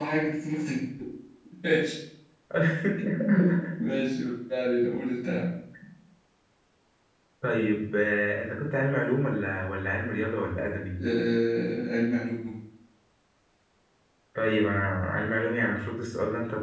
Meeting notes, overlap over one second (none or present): none